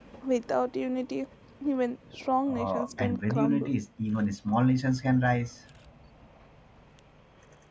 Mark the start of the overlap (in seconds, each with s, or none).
2.5 s